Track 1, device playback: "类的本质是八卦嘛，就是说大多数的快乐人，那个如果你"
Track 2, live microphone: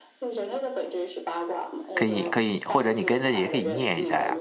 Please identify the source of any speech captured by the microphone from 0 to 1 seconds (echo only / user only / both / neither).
echo only